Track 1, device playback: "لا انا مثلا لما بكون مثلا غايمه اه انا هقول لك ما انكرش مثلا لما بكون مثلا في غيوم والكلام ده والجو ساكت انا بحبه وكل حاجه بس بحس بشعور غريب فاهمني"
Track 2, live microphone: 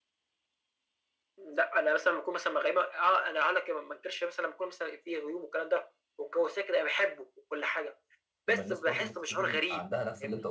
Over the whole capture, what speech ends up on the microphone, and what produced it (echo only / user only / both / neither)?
both